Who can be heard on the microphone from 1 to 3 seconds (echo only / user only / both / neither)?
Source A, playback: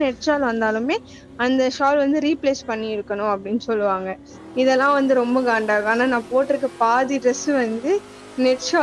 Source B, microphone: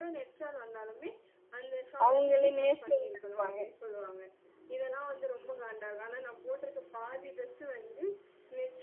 both